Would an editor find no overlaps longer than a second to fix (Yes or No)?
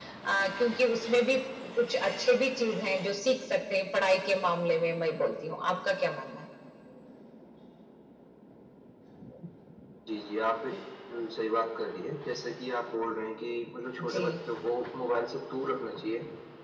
Yes